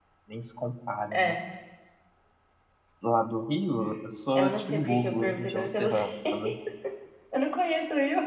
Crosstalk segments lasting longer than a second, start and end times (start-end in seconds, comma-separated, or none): 4.3-6.0